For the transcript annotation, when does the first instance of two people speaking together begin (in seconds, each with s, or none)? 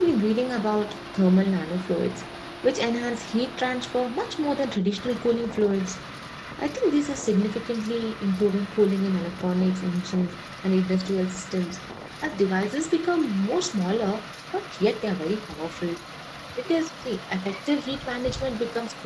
none